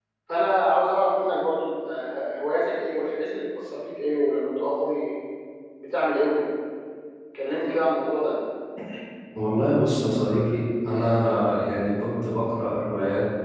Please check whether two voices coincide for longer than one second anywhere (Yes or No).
No